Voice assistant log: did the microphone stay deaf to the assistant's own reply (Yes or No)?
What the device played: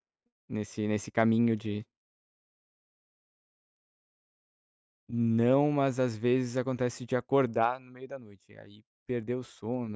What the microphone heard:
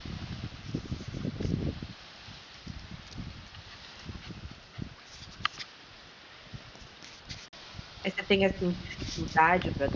Yes